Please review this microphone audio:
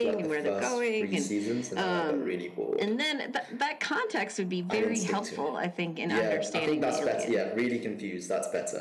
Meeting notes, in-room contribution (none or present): present